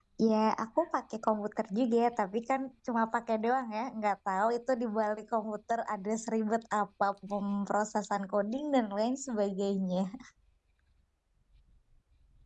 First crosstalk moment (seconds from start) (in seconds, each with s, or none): none